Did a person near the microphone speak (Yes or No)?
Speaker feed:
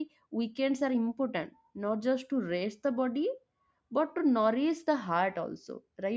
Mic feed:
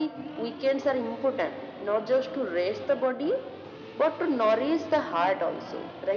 No